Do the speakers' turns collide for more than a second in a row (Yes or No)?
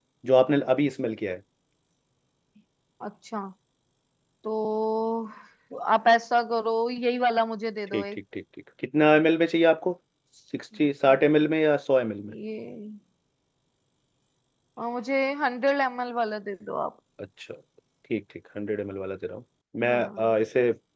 No